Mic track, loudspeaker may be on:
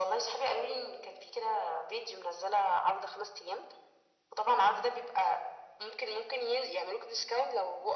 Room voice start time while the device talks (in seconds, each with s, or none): none